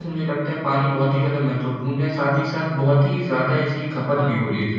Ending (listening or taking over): taking over